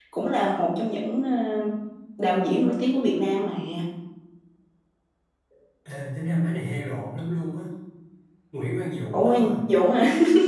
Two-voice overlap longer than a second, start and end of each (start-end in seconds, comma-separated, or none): none